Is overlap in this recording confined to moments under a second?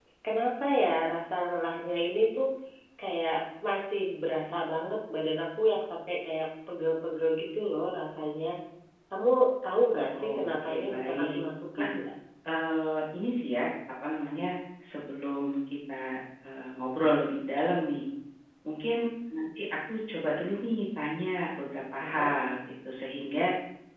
No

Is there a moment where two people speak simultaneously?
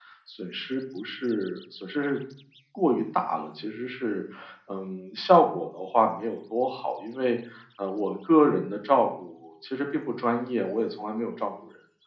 No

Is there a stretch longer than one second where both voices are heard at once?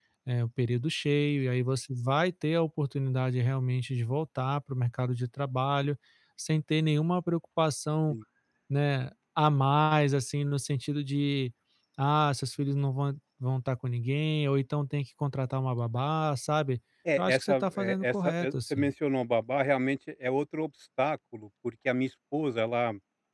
Yes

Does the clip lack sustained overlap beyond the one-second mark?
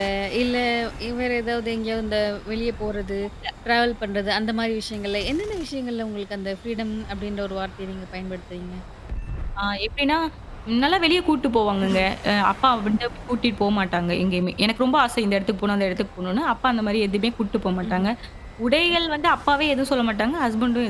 Yes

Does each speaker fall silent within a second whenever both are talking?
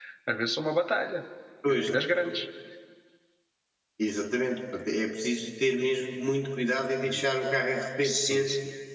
Yes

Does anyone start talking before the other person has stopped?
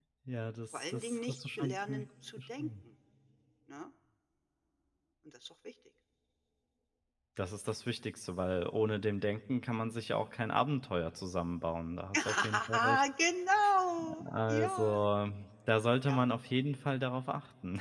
Yes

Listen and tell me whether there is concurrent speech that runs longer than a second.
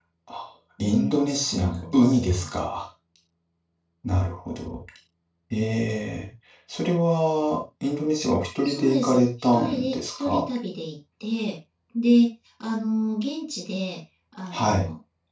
Yes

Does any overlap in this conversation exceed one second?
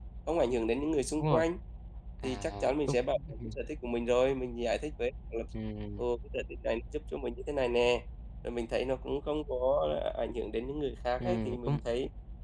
Yes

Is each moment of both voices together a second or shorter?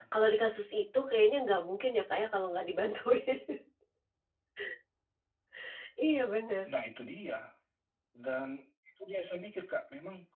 Yes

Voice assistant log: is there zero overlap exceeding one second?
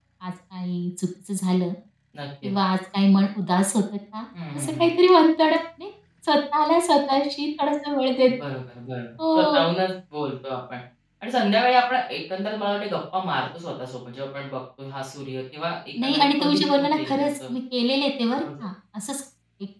No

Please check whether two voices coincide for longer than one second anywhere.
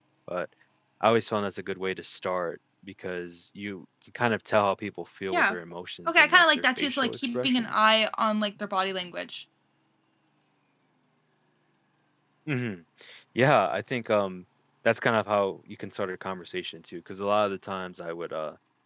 Yes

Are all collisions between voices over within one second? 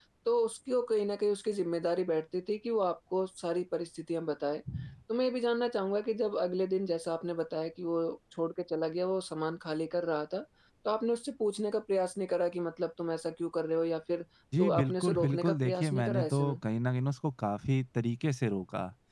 No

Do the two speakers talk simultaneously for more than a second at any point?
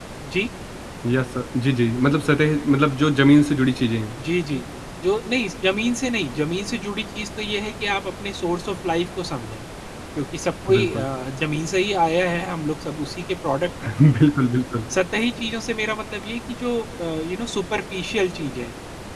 No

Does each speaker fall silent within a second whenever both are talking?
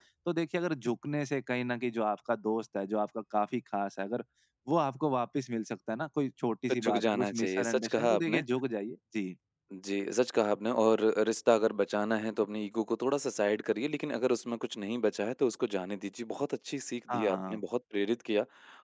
No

